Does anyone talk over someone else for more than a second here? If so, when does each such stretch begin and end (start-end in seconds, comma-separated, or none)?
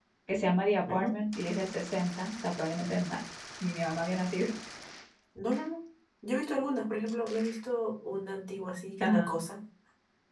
none